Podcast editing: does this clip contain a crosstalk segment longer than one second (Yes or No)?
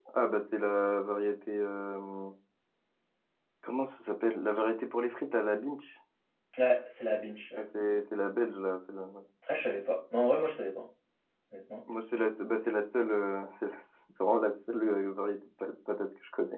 No